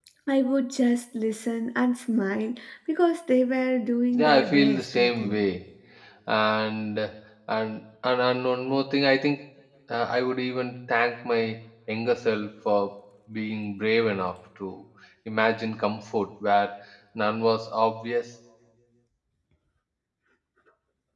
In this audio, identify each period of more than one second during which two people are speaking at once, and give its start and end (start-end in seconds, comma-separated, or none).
4.1-5.4